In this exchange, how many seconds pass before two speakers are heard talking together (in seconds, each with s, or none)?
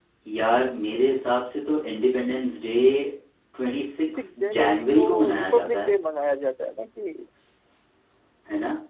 4.1 s